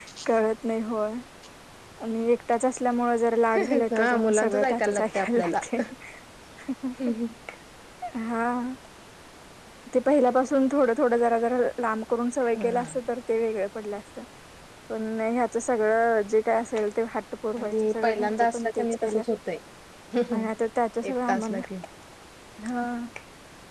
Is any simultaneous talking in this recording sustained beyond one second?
Yes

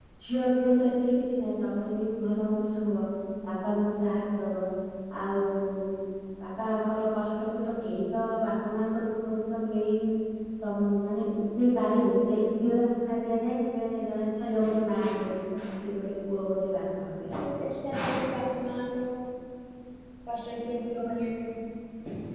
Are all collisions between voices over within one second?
Yes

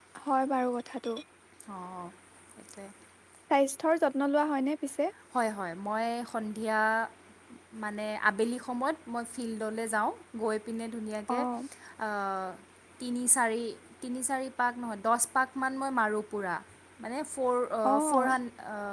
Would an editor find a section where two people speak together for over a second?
No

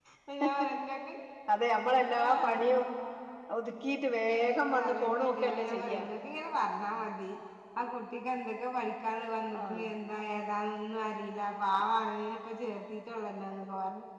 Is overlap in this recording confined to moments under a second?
No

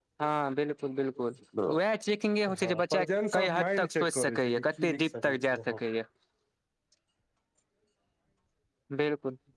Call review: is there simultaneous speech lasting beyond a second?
Yes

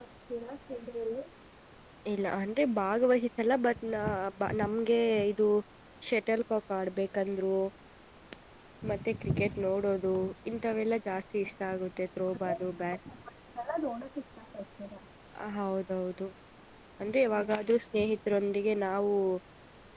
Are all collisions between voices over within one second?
Yes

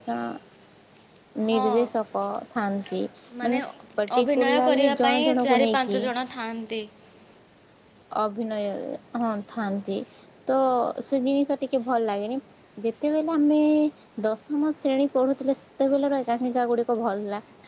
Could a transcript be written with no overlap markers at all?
No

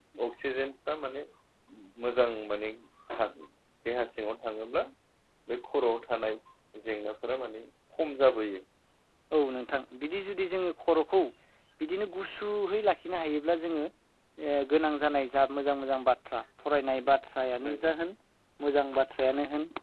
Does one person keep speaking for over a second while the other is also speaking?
No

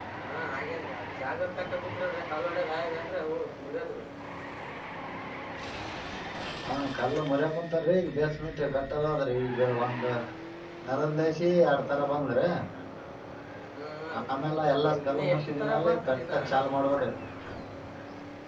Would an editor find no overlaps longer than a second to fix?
No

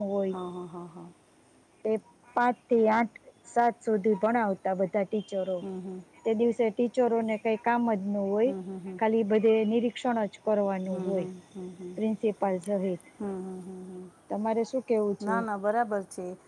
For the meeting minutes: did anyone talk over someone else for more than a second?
No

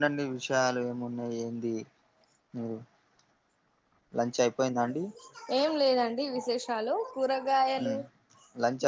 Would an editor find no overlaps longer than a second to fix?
Yes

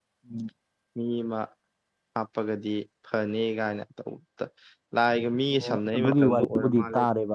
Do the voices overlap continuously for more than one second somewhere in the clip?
Yes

